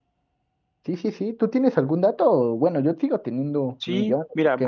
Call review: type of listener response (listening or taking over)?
taking over